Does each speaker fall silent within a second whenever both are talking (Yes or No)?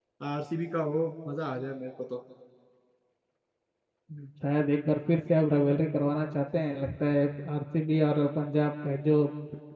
Yes